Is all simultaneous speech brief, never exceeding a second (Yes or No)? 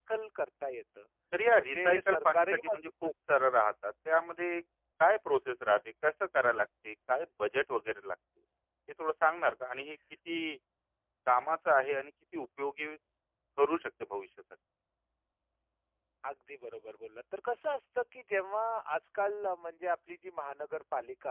No